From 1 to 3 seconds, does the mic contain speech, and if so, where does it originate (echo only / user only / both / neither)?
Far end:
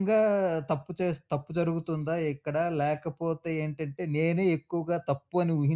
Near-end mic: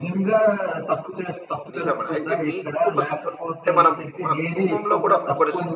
both